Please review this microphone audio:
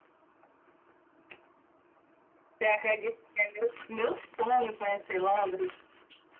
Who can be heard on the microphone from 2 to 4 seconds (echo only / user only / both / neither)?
echo only